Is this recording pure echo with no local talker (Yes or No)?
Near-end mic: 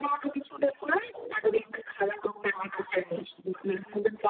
Yes